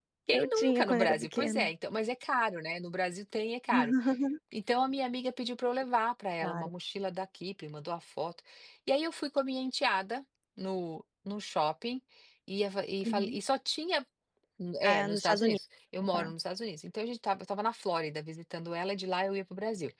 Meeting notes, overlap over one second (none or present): present